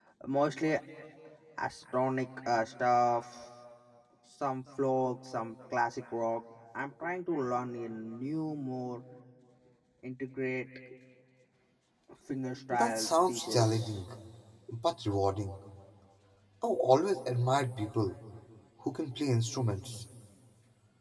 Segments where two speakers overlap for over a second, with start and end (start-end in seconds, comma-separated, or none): 12.7-14.0